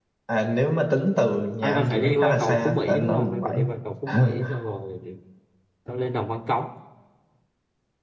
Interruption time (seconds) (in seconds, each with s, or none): 1.6 s